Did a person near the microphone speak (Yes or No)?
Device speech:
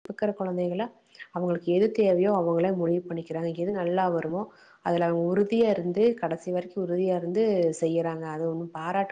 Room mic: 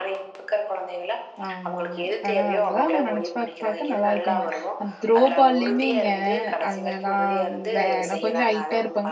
Yes